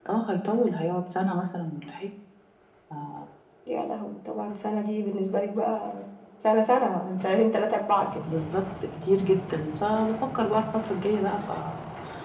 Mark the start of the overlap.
none

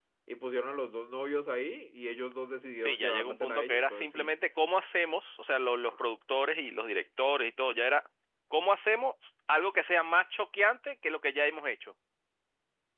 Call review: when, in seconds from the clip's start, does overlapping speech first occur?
3 s

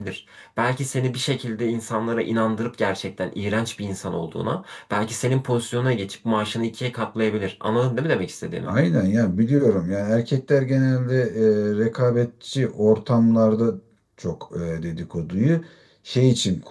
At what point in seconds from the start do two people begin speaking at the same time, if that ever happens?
none

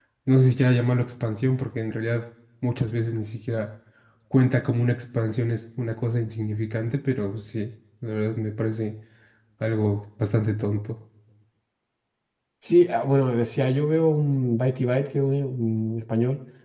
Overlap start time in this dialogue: none

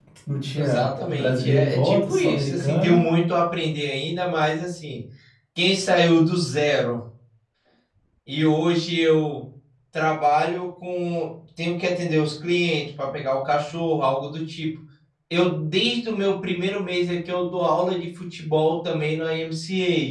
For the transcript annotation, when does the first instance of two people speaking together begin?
1 s

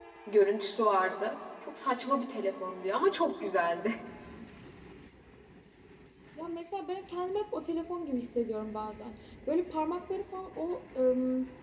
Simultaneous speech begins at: none

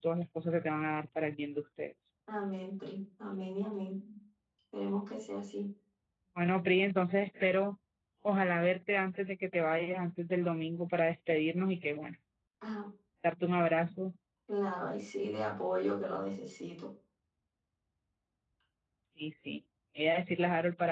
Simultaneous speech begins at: none

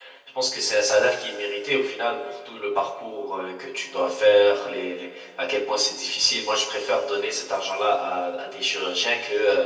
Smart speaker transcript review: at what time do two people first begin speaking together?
none

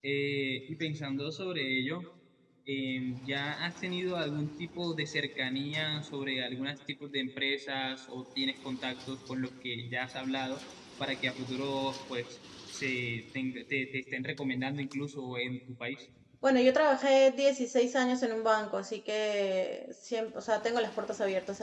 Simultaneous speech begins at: none

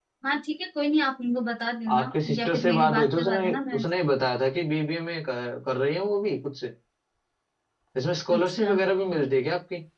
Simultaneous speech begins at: 2 s

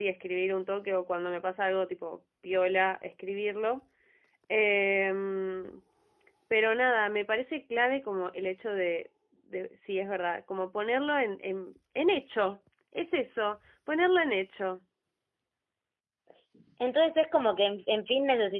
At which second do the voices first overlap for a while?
none

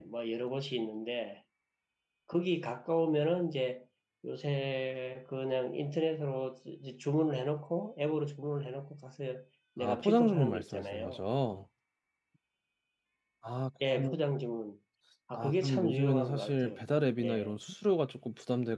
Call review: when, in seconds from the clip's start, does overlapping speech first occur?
10 s

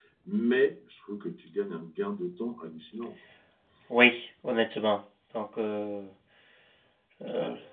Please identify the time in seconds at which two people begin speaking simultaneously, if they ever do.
none

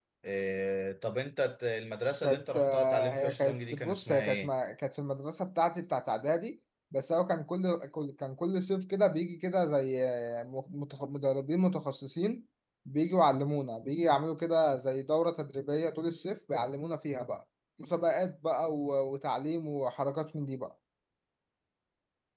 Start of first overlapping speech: 2 s

